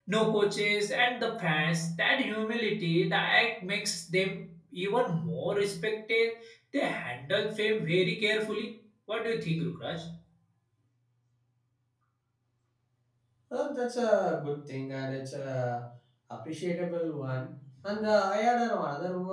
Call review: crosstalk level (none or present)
none